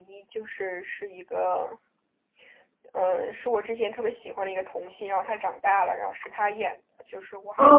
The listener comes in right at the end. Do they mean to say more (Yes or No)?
Yes